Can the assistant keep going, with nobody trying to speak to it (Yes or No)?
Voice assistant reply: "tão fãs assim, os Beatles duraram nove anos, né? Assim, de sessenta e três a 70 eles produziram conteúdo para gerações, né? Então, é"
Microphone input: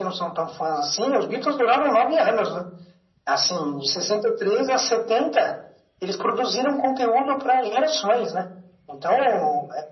Yes